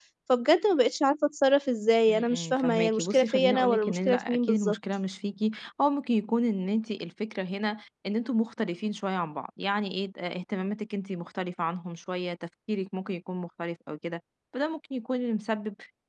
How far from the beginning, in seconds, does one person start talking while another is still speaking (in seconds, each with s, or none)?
2.1 s